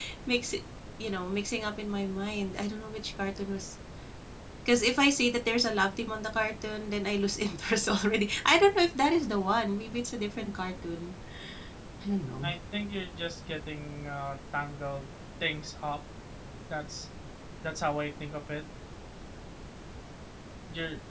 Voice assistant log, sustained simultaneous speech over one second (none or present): none